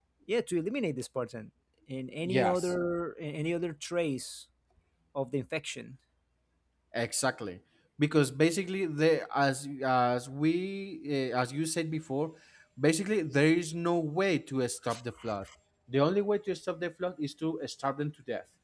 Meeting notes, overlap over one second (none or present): none